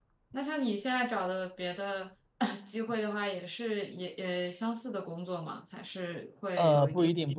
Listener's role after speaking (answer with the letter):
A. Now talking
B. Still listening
A